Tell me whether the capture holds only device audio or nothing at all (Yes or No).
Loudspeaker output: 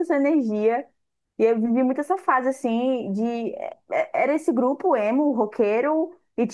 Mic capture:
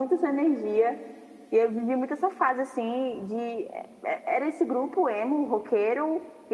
Yes